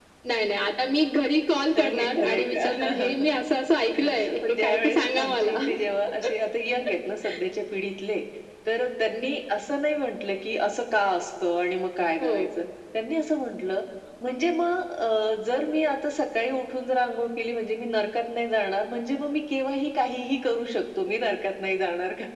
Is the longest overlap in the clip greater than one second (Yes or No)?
Yes